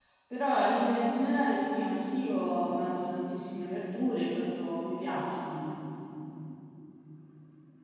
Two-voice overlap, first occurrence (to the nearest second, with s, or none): none